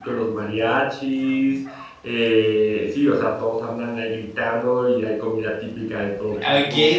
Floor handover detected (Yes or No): Yes